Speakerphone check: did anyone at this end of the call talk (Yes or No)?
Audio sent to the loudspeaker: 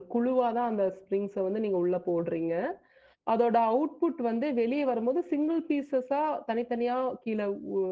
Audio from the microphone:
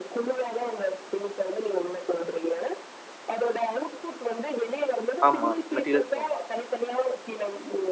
Yes